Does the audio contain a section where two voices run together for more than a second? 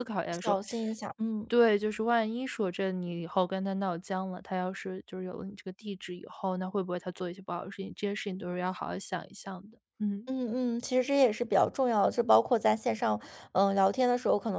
No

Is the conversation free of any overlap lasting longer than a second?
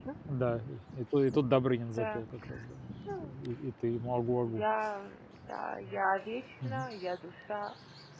Yes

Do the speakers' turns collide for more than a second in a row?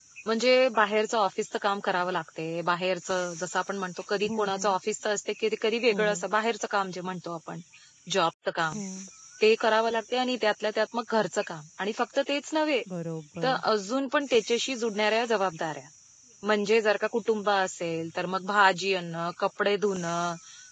No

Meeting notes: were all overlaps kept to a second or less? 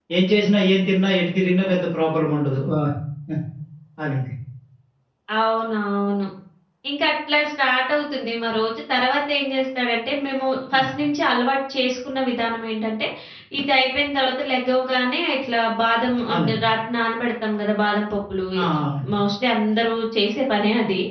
Yes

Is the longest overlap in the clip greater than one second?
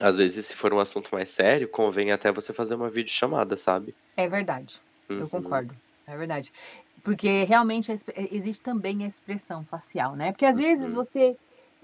No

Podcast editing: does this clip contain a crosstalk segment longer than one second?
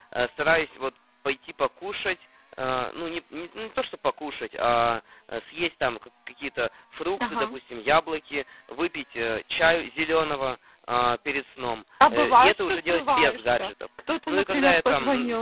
Yes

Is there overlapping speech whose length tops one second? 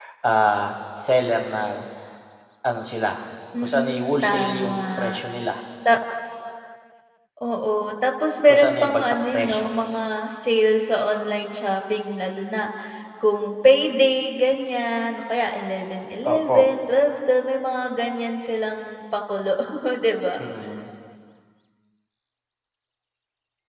Yes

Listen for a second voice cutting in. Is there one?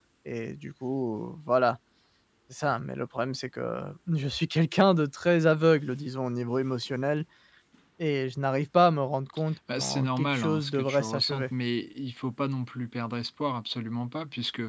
Yes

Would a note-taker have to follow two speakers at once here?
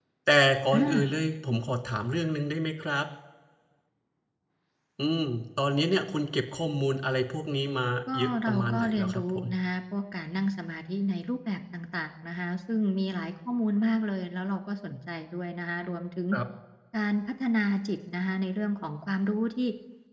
Yes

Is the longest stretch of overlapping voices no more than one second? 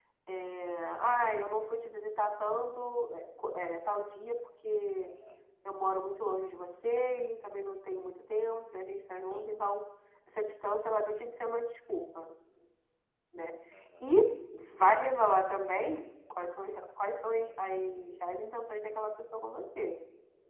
Yes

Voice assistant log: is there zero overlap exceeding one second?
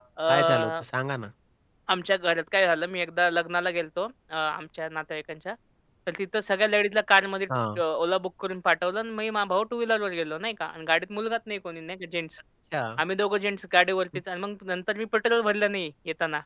Yes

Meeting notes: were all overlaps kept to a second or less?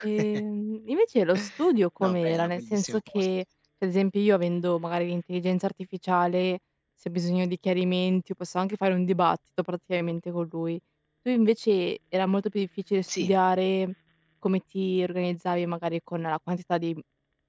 No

